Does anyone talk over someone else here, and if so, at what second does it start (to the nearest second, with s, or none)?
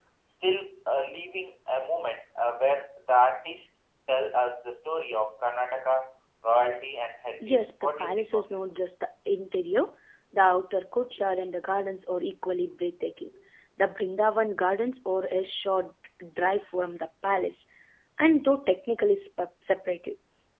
7 s